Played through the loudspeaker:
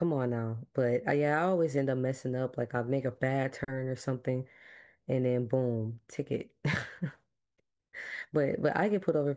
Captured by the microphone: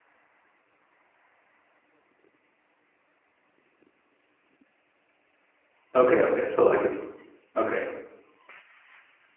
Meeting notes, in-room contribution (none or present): present